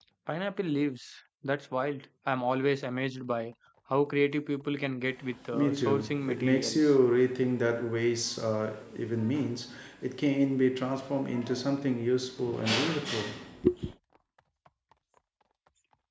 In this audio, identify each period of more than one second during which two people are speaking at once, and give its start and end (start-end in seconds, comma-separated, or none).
5.5-6.9